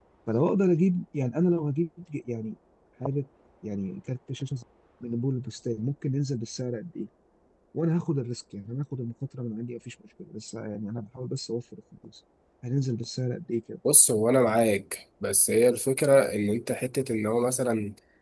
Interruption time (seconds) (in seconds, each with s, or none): none